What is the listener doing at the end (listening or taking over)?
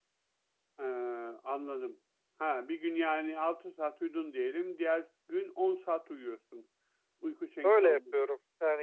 taking over